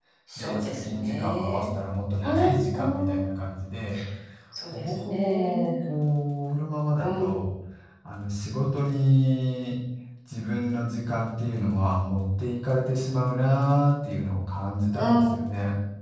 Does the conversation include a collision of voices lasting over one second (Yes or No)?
Yes